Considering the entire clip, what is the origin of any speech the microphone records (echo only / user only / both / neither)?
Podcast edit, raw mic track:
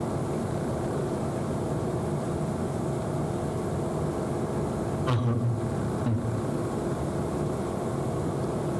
user only